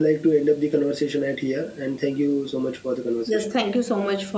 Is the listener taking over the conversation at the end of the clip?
Yes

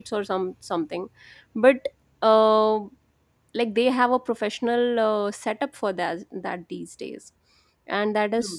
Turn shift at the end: No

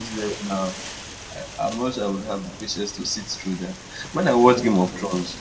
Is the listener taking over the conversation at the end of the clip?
No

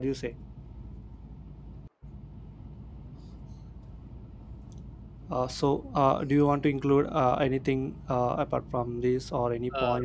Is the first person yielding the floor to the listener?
Yes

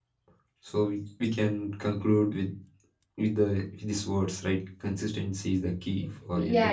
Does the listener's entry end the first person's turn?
Yes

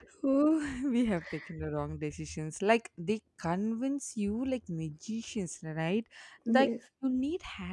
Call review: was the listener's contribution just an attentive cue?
Yes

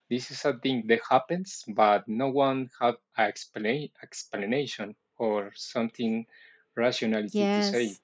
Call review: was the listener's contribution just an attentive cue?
No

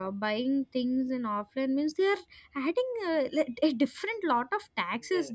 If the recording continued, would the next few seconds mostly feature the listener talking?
No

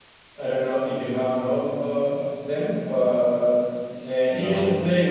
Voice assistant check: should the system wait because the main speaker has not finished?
Yes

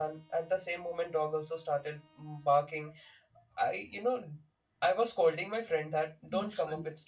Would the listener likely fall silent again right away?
Yes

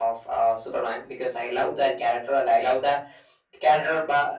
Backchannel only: Yes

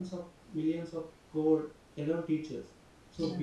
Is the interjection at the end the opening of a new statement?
No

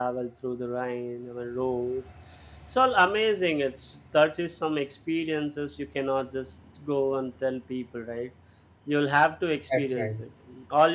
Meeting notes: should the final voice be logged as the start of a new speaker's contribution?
No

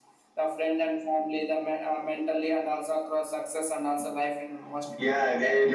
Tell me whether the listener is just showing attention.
No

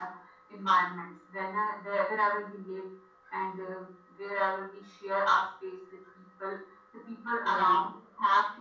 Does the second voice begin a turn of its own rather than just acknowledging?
No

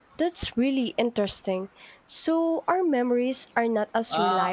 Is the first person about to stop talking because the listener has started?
Yes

